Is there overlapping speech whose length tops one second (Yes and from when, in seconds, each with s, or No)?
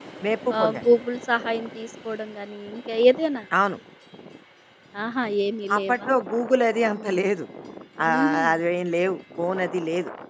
No